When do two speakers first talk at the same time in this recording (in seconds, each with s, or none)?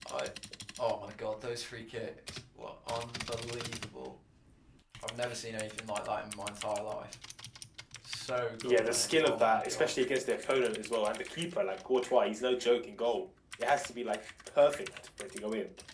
8.6 s